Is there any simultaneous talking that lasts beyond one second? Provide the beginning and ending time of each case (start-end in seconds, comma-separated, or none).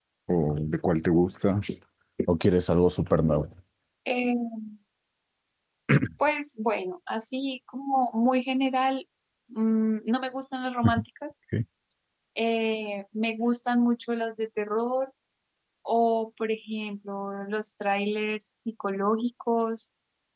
none